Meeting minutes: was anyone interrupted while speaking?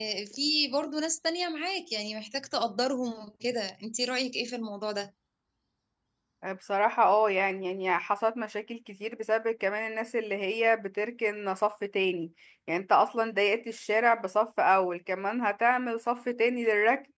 No

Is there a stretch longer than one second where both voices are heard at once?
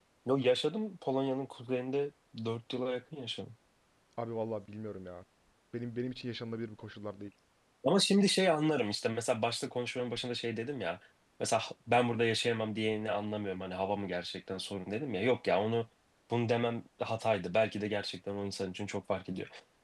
No

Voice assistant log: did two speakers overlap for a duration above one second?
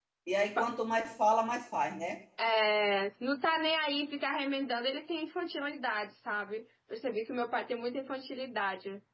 No

